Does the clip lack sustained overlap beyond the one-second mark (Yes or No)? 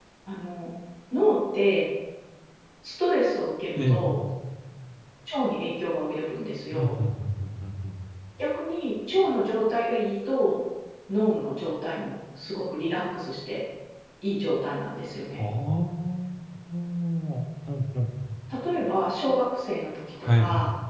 Yes